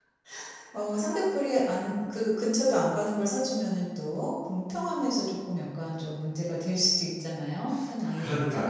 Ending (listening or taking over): taking over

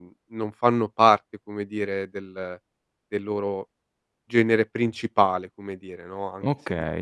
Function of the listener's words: taking over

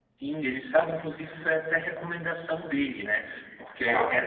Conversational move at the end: listening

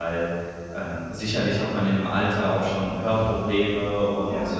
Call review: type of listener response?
listening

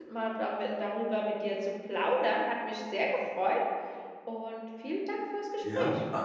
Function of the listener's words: taking over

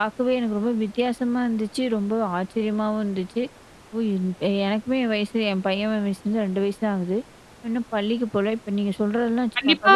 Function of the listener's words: taking over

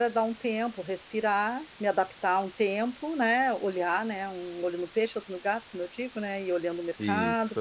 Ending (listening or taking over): listening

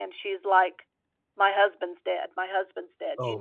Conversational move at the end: listening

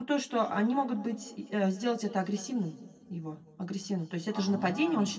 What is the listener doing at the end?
listening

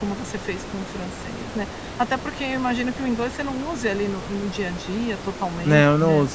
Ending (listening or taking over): taking over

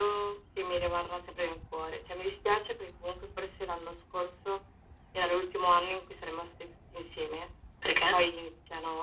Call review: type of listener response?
listening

